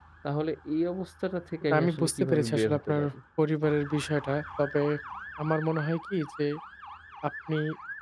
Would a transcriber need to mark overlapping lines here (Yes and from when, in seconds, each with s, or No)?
Yes, from 1.6 s